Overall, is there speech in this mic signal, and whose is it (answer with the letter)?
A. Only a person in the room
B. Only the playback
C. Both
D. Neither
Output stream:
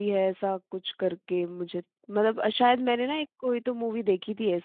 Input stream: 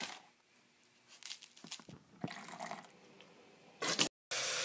D